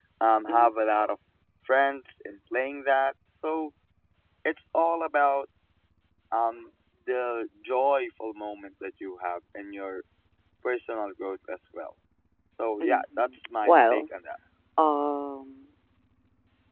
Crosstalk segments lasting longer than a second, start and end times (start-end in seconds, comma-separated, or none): 12.8-14.0